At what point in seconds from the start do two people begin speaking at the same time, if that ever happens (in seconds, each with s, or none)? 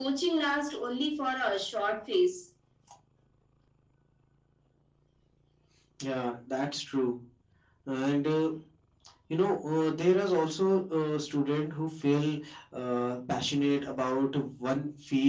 none